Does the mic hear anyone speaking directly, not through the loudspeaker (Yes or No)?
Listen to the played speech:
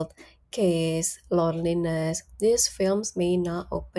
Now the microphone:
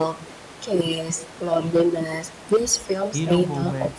Yes